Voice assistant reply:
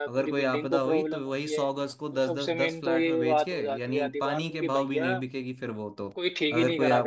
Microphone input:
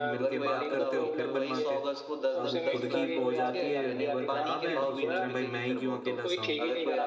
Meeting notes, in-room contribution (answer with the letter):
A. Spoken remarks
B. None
A